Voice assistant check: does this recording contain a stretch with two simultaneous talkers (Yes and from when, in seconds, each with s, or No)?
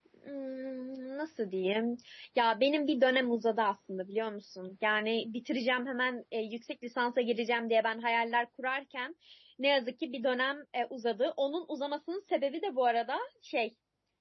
No